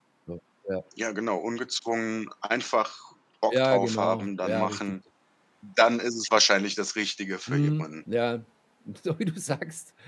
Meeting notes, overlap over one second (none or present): present